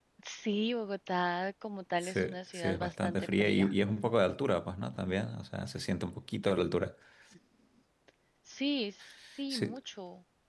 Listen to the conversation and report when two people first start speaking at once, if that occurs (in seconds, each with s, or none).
2.0 s